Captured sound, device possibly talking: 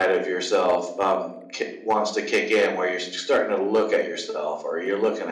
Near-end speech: none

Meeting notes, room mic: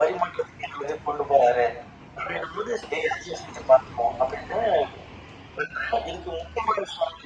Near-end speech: none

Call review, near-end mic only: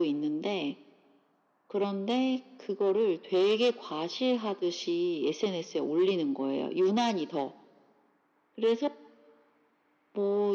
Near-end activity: none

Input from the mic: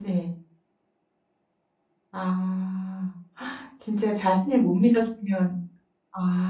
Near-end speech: present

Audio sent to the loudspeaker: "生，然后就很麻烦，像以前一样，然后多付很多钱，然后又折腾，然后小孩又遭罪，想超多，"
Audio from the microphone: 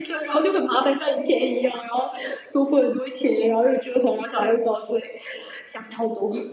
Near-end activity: none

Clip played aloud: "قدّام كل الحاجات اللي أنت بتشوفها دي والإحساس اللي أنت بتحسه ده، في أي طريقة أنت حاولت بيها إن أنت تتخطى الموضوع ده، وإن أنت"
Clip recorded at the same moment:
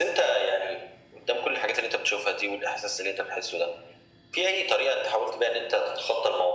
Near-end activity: none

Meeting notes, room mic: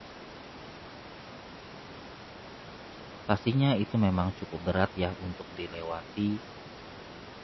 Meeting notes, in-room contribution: present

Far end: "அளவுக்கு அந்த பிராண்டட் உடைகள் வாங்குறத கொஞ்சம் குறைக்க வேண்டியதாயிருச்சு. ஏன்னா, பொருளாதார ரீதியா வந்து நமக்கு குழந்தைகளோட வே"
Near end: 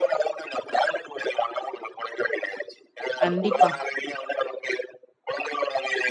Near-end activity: present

